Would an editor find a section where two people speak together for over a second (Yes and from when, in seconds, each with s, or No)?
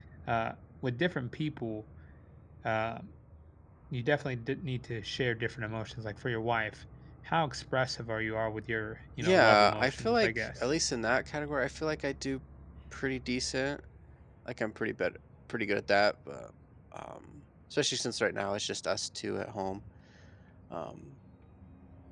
Yes, from 9.2 s